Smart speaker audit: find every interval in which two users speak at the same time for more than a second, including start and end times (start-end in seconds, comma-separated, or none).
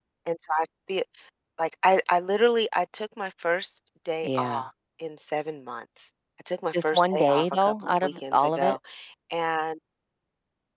6.7-8.8